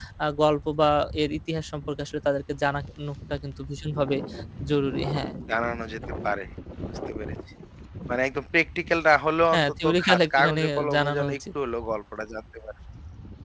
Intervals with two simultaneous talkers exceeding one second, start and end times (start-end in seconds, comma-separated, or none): 9.5-11.4